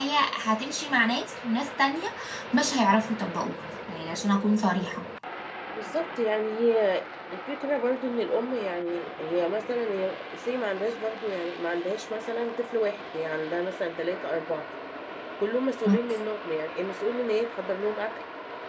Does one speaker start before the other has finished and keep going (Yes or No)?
No